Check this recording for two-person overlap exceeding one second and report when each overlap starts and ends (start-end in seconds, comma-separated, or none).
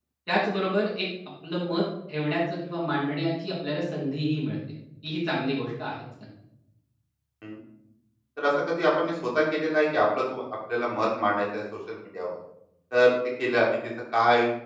none